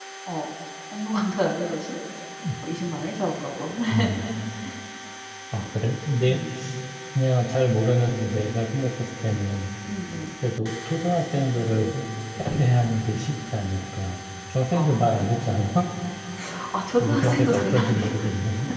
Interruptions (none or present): present